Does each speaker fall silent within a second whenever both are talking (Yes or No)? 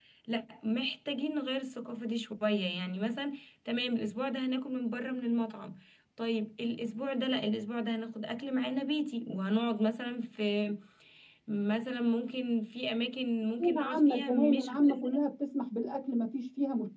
No